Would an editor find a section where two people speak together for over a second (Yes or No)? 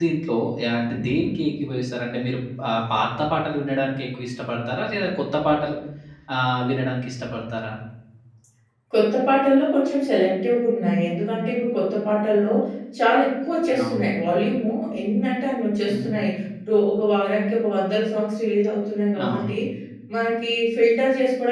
No